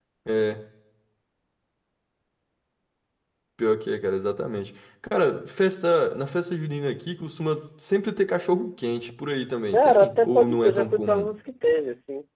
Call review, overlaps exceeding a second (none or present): present